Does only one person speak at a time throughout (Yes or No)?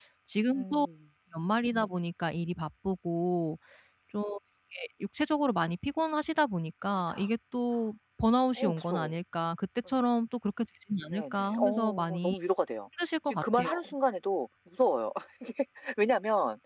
No